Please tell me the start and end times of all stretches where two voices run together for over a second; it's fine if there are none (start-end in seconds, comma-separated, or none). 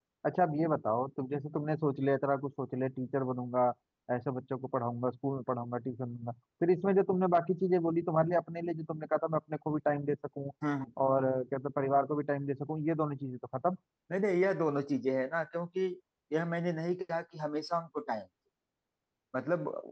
none